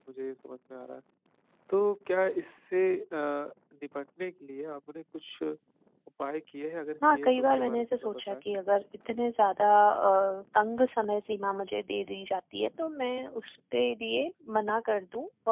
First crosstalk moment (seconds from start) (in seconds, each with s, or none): 7.0 s